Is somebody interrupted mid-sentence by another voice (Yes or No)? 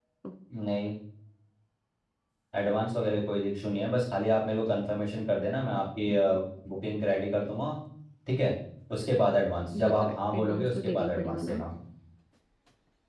Yes